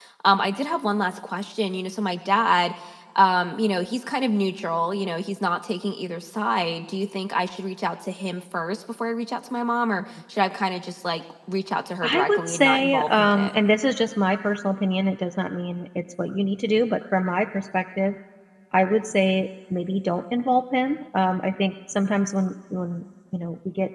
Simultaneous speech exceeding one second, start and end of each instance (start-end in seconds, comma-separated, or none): 12.0-13.5